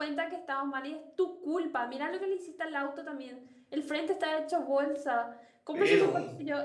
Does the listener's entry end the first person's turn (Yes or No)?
No